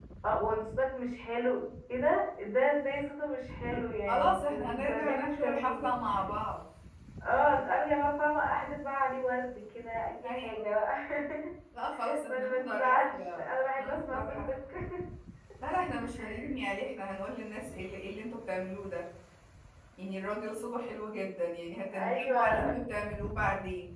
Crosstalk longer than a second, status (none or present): present